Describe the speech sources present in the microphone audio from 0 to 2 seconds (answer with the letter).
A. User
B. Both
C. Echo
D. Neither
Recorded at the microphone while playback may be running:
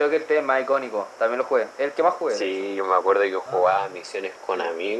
C